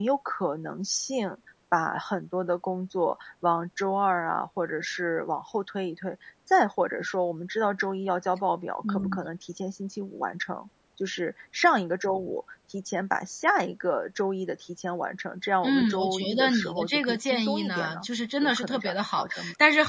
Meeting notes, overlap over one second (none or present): present